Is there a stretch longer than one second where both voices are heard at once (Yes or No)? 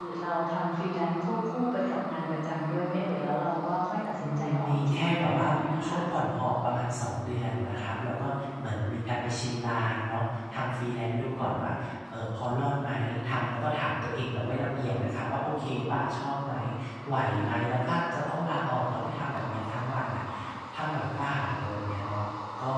Yes